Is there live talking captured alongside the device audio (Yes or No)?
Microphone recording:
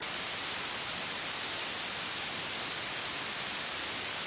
No